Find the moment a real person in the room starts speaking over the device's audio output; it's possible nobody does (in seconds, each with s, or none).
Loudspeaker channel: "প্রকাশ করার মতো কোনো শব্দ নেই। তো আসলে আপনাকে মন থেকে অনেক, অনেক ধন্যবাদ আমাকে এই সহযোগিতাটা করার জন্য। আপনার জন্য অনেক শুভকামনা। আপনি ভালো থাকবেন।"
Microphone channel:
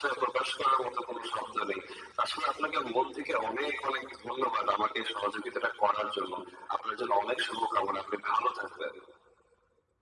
none